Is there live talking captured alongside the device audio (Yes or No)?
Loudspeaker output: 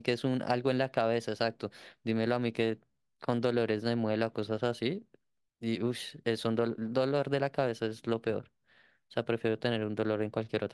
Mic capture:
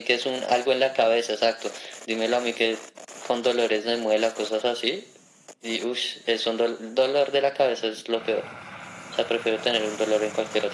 No